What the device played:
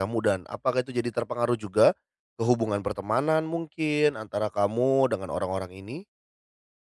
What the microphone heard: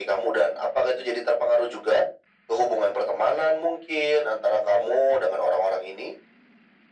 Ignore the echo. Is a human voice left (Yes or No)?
No